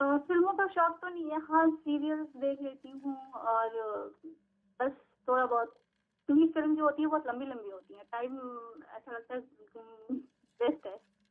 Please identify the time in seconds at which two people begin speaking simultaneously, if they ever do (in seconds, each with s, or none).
none